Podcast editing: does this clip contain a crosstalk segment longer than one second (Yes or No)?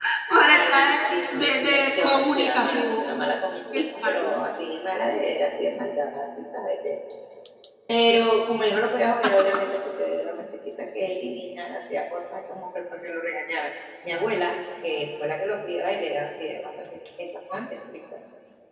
Yes